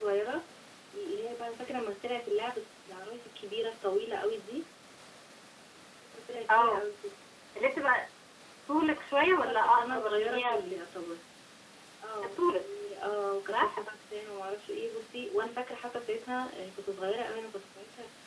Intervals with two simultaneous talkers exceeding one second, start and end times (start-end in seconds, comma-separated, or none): 8.9-10.8